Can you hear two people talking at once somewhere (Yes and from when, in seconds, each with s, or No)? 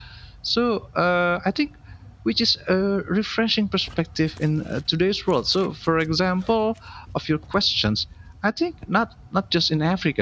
No